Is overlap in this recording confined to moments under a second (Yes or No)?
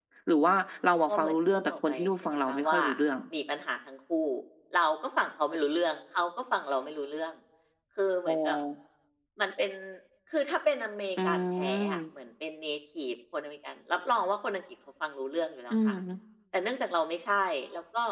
No